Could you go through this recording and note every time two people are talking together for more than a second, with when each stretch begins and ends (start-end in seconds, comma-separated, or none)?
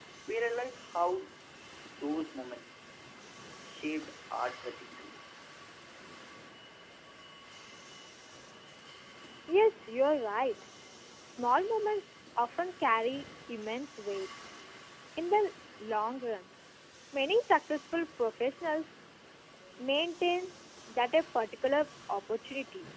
none